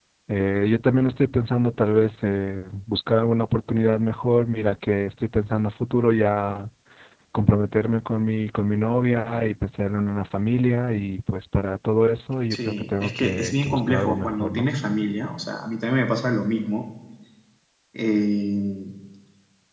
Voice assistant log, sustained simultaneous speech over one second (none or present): present